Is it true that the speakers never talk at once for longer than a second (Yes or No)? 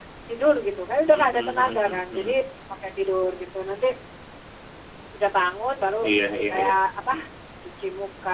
No